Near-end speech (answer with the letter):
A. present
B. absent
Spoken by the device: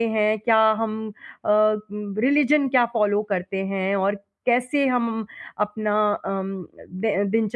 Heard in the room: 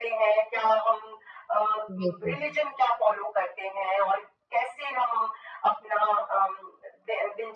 A